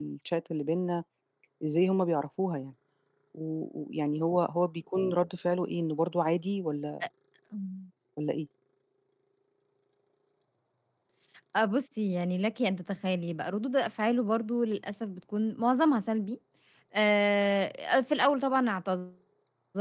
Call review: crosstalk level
none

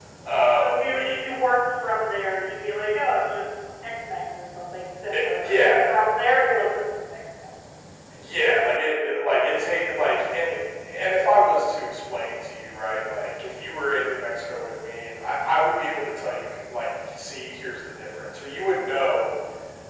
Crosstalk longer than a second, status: present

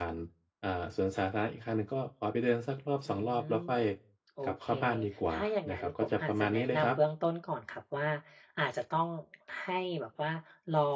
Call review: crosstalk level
present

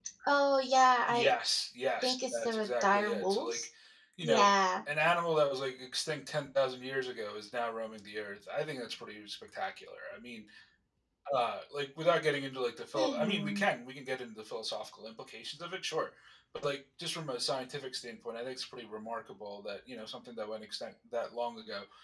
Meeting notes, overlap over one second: present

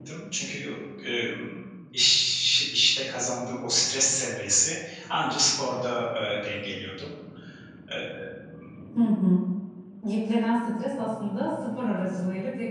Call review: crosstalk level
none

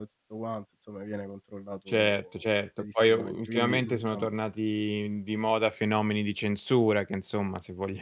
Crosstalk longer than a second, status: present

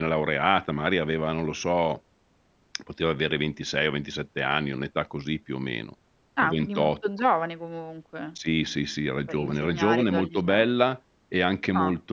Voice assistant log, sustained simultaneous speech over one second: present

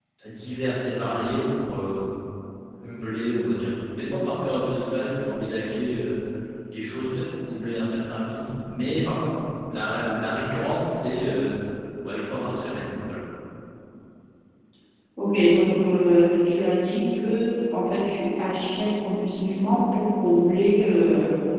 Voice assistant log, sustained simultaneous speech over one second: none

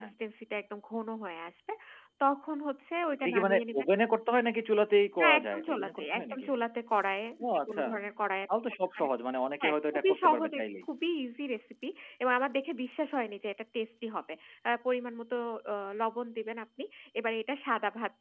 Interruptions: present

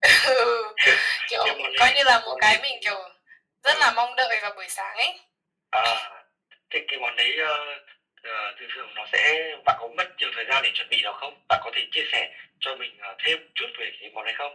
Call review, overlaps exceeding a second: present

